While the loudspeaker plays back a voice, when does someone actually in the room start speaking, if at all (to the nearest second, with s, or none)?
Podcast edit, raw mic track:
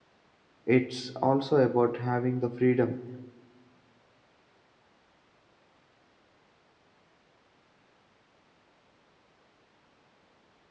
1 s